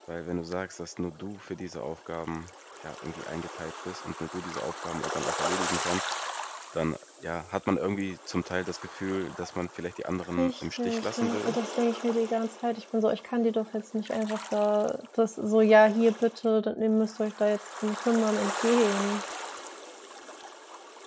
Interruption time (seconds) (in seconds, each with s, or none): 10.3 s